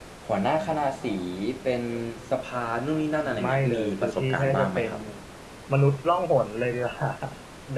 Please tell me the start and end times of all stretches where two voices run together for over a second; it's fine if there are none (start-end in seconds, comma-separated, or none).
3.4-4.9